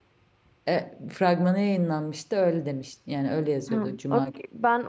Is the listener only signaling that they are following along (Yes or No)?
No